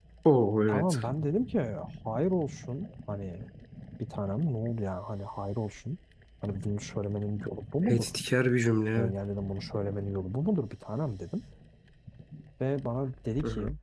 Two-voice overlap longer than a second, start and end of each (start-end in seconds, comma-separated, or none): none